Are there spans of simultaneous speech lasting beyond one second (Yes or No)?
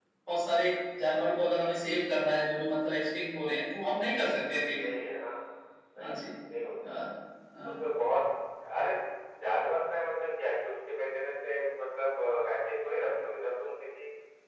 No